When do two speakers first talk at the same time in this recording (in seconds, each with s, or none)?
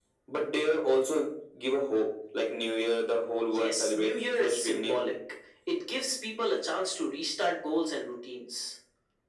3.5 s